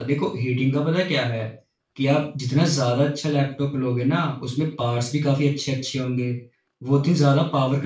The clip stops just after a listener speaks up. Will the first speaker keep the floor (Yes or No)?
Yes